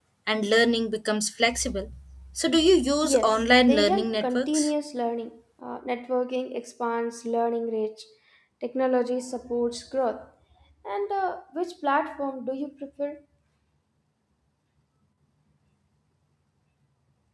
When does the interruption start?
3.0 s

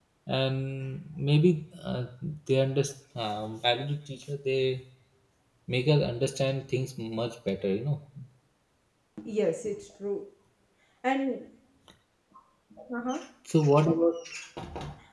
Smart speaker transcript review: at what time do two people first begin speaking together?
none

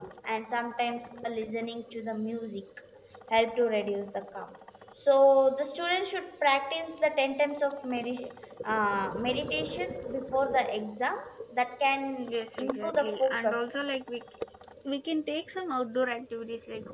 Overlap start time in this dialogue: 12.3 s

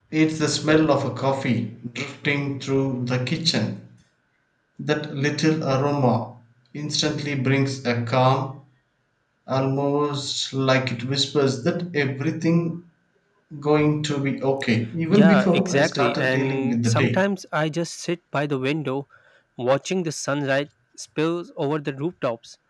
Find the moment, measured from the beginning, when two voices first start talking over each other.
15.1 s

